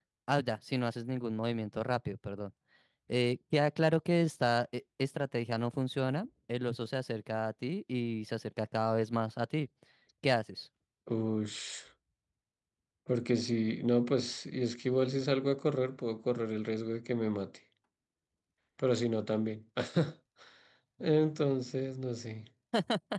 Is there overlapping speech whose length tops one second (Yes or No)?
No